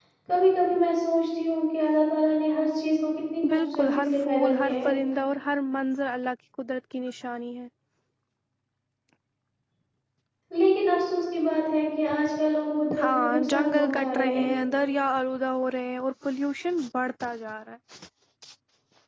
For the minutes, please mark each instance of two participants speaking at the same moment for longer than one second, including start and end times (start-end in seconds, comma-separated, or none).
3.5-4.9, 13.0-14.4